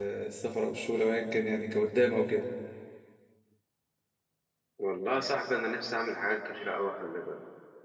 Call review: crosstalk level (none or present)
none